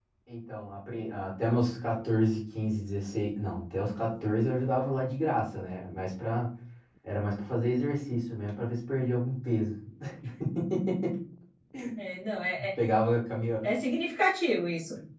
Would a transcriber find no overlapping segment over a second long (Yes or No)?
Yes